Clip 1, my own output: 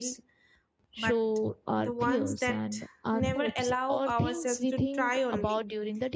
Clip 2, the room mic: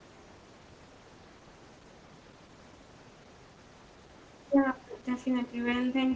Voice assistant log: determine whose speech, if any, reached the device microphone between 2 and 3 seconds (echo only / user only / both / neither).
neither